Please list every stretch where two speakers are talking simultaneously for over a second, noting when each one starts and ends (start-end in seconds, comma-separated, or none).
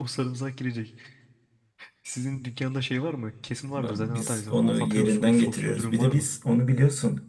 4.0-6.3